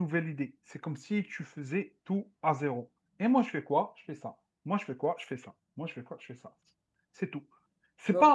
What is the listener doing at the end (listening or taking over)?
listening